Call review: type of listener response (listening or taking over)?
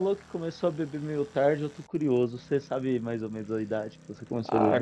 taking over